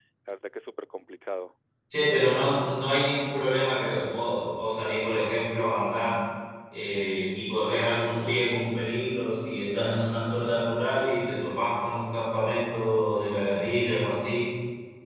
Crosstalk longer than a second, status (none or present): none